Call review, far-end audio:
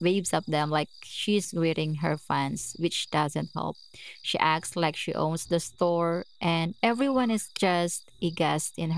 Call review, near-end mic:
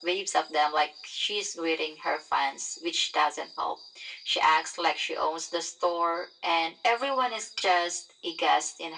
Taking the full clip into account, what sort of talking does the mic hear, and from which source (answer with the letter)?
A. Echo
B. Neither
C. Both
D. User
A